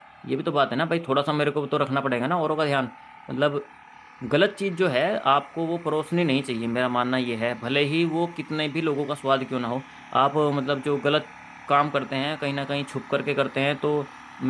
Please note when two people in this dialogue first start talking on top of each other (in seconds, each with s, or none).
none